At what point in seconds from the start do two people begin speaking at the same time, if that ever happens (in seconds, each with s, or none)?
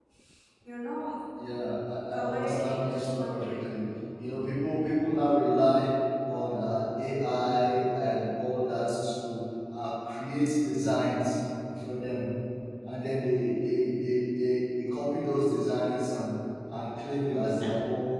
2.1 s